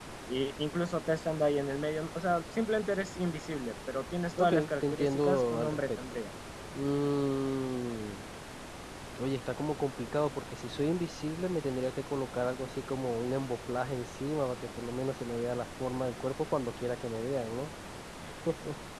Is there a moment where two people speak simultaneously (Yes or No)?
Yes